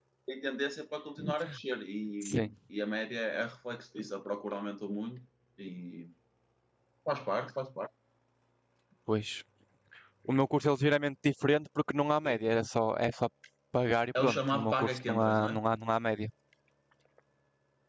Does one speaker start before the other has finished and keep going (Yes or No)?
Yes